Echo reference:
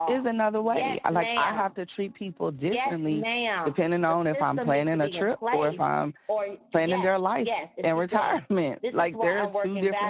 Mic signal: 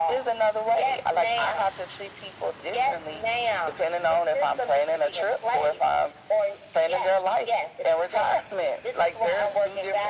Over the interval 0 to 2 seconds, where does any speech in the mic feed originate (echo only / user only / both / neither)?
echo only